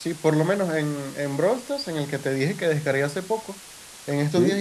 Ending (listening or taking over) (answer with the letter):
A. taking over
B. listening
B